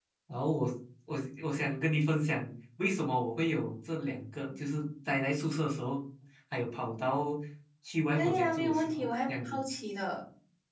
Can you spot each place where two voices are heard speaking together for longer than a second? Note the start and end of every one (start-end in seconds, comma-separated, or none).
8.1-9.6